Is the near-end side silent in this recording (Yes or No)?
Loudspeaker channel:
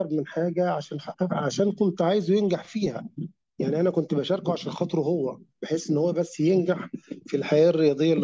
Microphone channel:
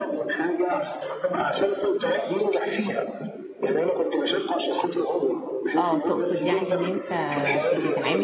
No